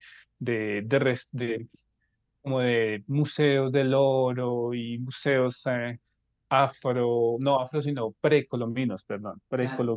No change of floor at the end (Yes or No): Yes